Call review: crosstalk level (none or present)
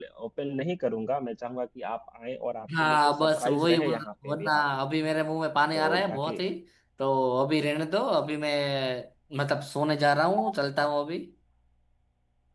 present